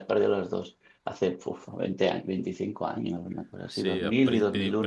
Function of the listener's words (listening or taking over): taking over